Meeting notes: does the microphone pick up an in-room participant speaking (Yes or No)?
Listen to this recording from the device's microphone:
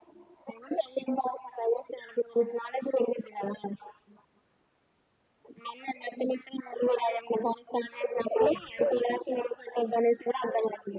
No